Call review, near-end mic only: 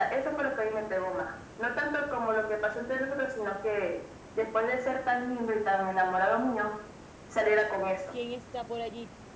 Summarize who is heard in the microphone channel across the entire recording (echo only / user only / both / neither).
both